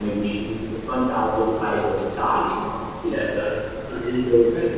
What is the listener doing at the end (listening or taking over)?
listening